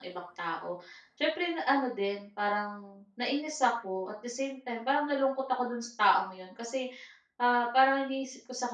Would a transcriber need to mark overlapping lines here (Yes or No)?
No